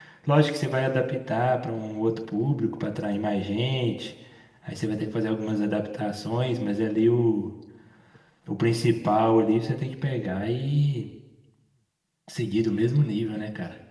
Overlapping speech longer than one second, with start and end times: none

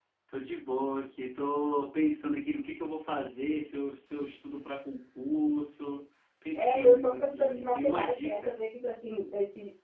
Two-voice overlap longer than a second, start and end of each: 6.5-8.6

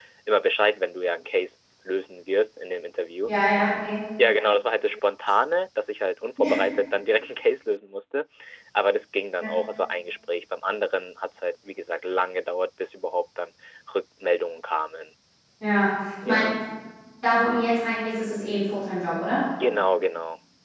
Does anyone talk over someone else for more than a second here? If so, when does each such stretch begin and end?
none

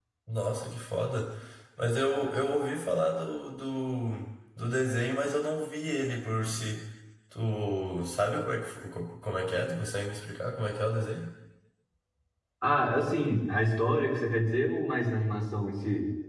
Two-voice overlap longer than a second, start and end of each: none

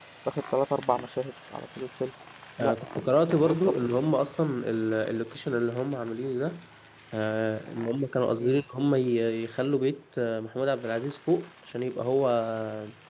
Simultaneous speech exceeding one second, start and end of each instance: 2.6-4.0

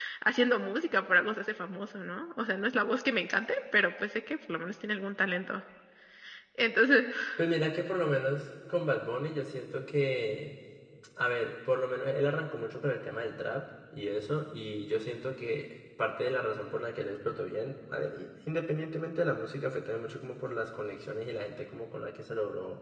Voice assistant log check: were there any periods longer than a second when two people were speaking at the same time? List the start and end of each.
none

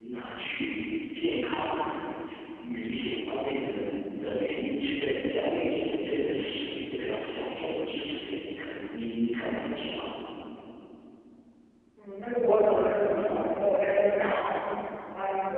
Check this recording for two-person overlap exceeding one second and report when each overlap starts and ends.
none

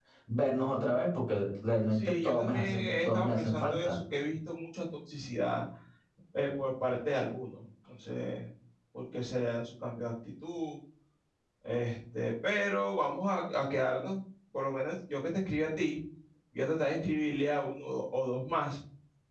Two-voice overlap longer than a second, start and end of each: 1.9-4.0

